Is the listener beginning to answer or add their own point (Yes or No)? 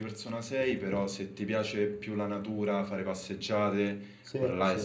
No